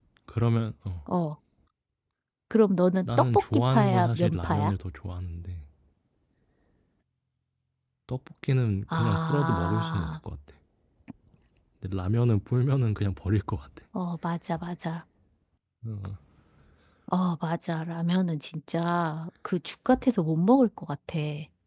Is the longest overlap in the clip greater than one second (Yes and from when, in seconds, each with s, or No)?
Yes, from 3.0 s